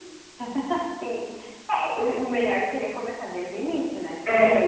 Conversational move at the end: listening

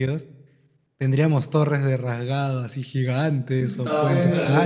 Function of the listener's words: taking over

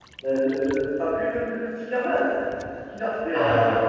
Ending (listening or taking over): taking over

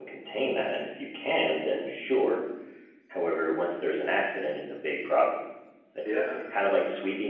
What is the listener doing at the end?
listening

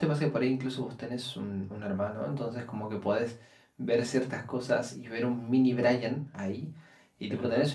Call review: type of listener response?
listening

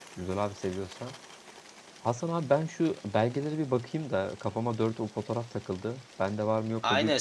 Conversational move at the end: taking over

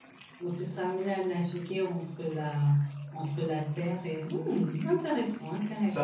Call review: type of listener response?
taking over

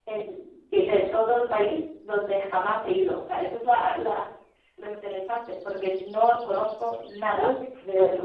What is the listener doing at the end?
taking over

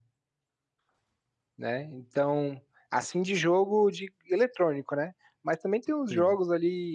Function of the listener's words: listening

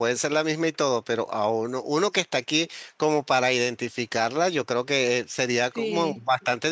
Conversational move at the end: listening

